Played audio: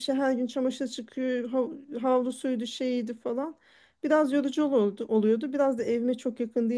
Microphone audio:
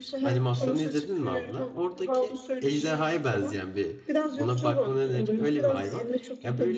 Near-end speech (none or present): present